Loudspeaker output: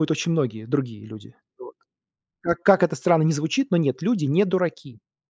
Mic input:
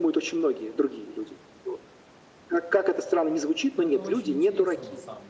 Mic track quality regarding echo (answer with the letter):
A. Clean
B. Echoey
B